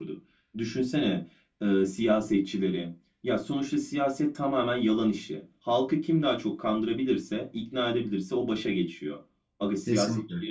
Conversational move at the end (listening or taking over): listening